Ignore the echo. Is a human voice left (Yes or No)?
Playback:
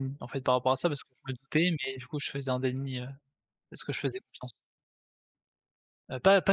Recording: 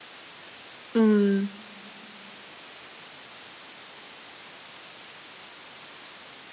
Yes